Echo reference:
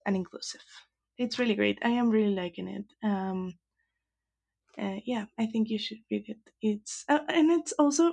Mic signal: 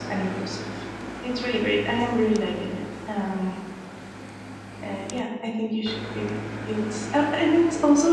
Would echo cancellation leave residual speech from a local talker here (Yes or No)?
No